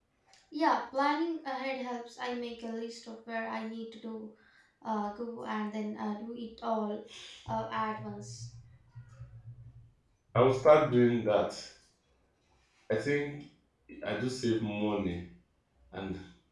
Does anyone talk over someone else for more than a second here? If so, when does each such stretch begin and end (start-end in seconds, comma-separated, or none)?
none